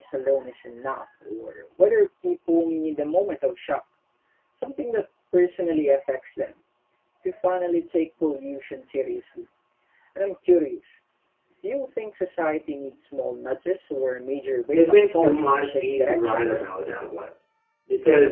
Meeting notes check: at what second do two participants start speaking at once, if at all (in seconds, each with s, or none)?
14.7 s